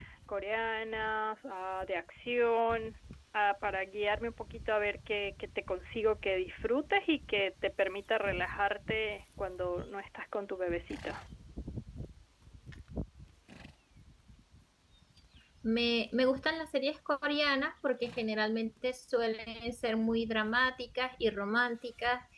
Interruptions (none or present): none